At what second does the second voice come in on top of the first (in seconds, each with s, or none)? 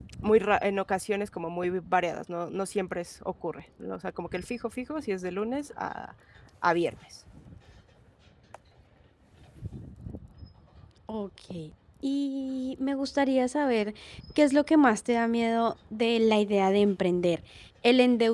none